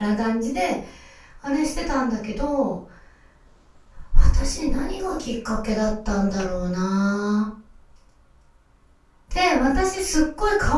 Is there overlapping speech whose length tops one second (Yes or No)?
No